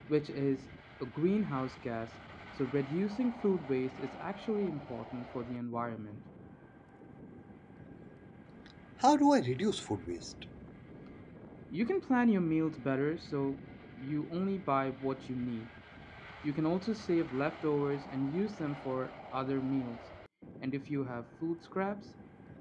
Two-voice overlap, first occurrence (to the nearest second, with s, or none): none